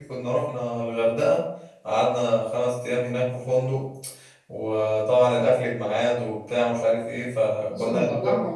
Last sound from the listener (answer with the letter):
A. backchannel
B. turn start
B